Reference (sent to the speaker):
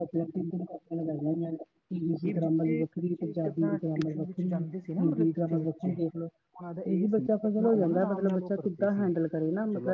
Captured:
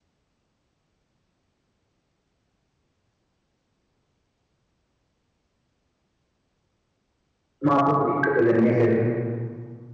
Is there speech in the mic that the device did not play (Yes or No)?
Yes